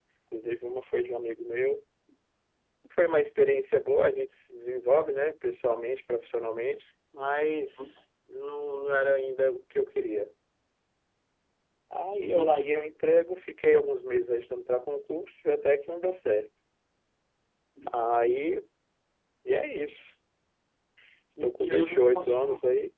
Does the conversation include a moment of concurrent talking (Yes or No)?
Yes